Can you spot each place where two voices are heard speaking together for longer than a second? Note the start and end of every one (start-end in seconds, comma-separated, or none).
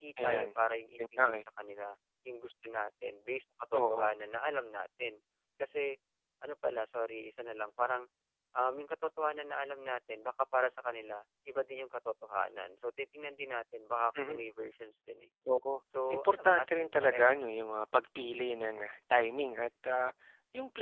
16.2-17.4